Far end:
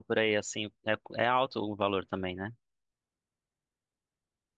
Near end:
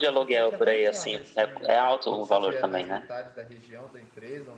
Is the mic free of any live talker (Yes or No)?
No